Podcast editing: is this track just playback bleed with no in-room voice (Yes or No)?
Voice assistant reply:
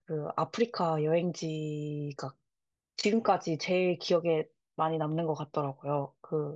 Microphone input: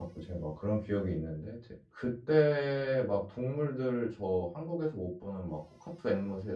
No